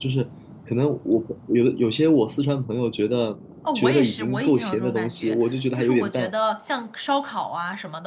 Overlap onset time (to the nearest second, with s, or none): 4 s